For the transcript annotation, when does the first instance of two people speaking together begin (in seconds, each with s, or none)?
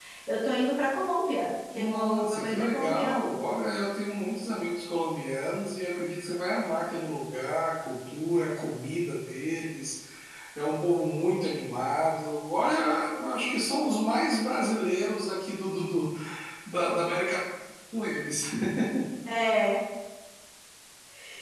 1.8 s